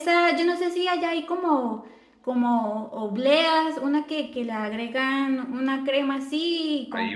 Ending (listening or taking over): taking over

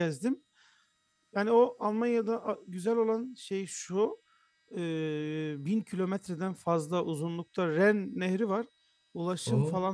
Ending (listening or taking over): listening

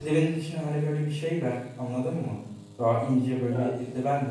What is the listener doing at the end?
listening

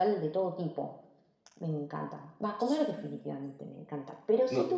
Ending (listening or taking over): listening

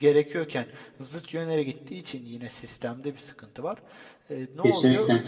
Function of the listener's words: listening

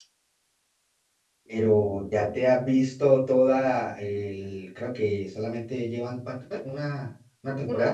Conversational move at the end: taking over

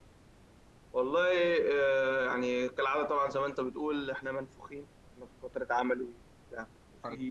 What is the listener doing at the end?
listening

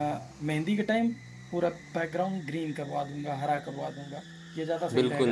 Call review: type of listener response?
taking over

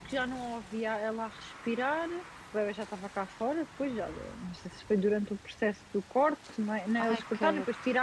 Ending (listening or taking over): listening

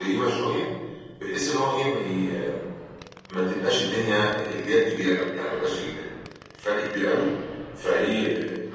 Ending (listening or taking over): listening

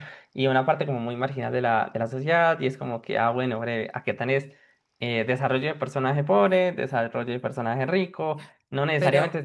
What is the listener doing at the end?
listening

